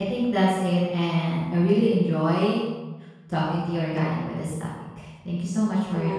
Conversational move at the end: taking over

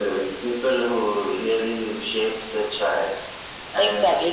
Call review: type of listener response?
taking over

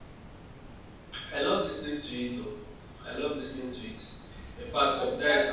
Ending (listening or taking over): listening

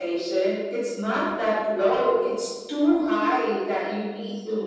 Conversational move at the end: listening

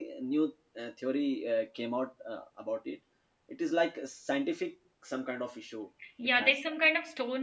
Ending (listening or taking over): taking over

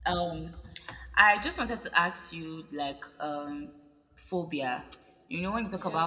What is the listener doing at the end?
listening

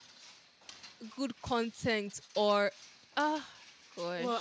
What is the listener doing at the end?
taking over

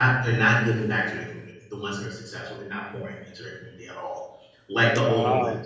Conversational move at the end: listening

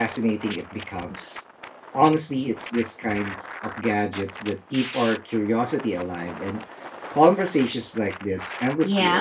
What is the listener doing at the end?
taking over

